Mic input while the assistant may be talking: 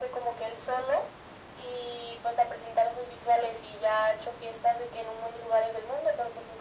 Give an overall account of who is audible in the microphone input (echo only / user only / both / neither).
echo only